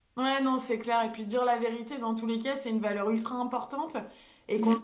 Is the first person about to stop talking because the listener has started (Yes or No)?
No